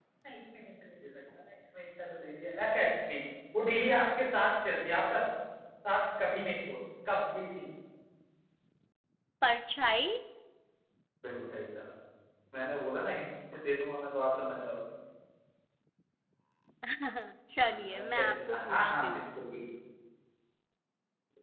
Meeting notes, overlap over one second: present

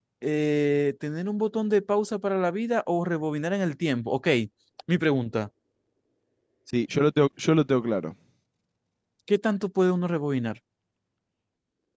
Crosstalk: none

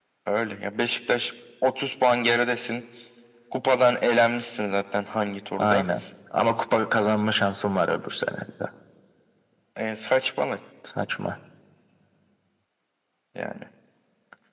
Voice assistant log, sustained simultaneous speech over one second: none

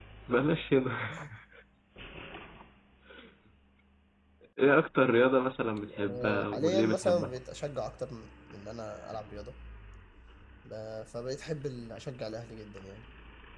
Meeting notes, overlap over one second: present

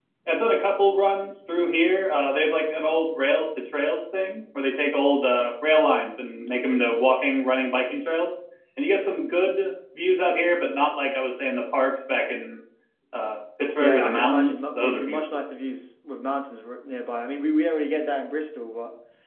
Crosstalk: present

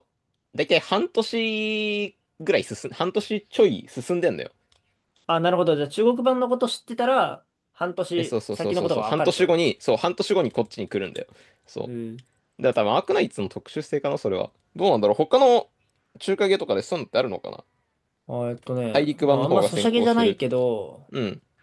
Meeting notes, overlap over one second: present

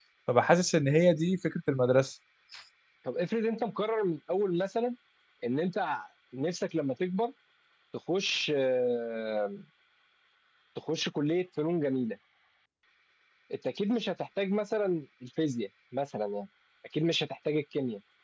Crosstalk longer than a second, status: none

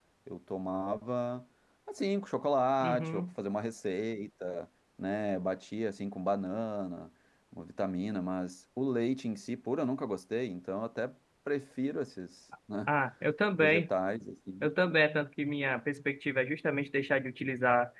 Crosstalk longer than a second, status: none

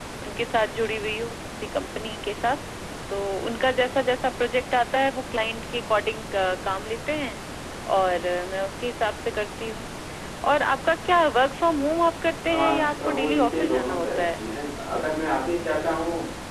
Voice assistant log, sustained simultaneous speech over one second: present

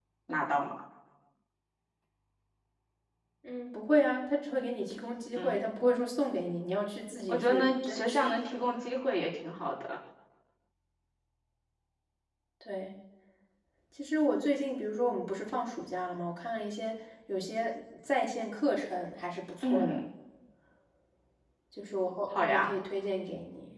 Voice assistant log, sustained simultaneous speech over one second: present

